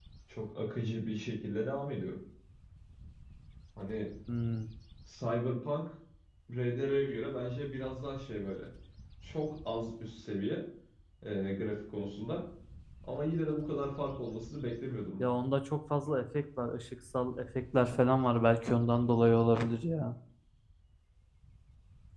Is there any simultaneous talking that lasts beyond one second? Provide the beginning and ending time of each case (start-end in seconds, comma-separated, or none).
none